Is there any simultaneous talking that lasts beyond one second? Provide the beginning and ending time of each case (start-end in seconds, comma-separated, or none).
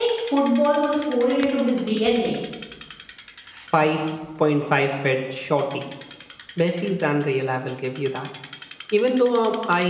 none